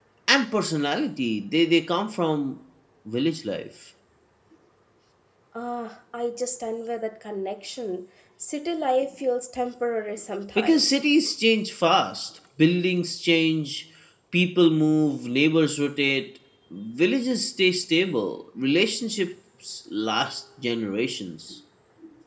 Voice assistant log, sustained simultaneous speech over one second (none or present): none